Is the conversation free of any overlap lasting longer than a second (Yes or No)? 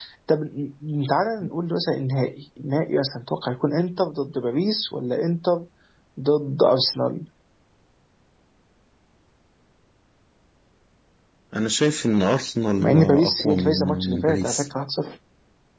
No